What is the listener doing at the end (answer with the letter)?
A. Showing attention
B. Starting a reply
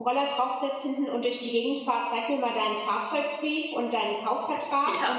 A